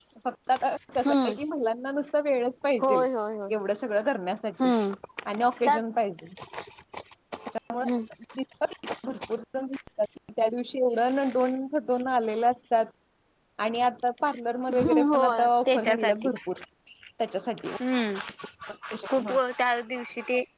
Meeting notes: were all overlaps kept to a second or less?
No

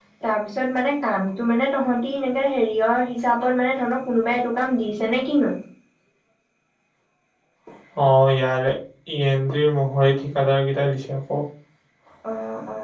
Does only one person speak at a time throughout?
Yes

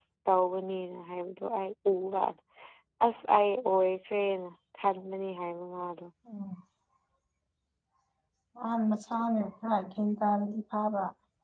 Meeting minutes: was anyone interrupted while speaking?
No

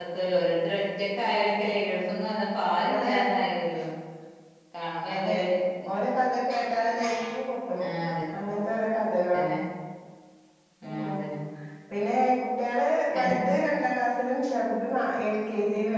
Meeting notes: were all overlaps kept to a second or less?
Yes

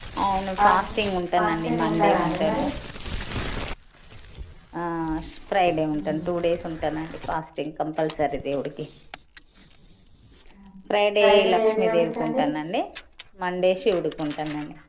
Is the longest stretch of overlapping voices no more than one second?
No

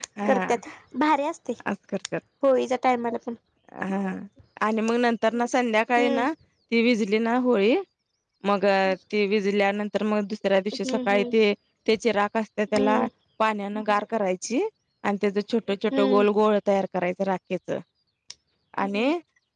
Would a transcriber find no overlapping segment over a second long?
Yes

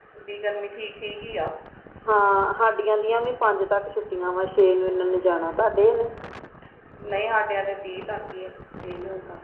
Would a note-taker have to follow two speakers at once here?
No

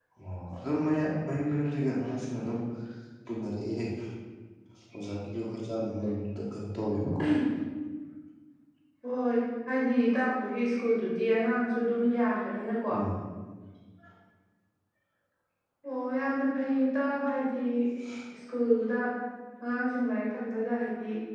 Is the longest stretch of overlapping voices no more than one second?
Yes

